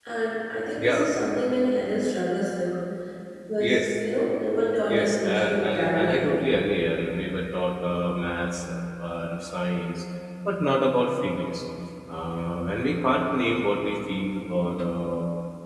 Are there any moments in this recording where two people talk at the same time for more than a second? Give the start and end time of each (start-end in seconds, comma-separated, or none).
4.9-6.3